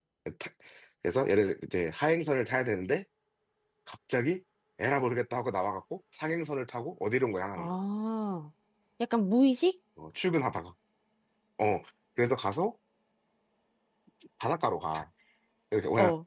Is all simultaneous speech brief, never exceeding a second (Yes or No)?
Yes